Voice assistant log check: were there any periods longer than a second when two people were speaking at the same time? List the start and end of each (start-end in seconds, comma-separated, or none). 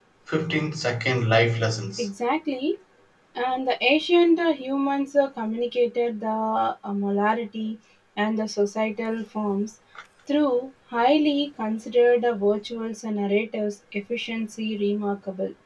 none